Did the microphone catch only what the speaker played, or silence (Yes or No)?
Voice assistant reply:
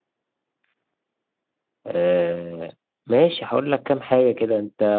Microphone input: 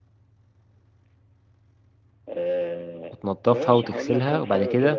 No